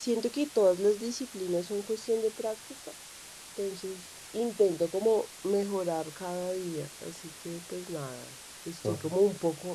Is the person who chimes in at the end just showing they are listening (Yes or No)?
Yes